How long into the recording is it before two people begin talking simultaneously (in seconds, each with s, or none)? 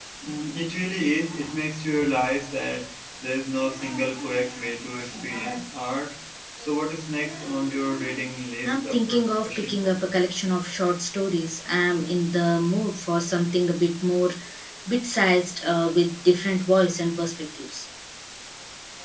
8.7 s